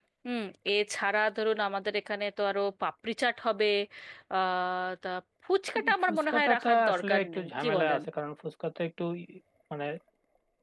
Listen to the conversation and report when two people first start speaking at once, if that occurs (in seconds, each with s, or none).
6.0 s